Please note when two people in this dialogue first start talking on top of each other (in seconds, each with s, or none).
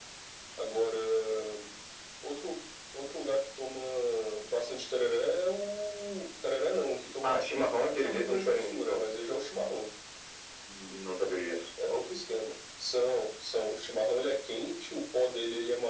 7.2 s